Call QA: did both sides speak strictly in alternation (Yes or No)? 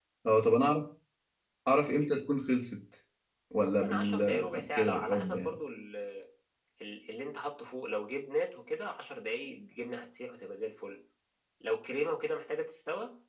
No